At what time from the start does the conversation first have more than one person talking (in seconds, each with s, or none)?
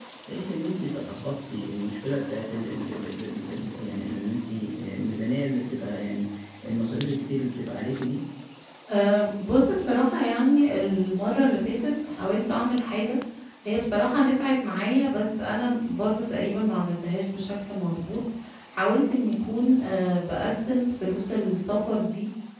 none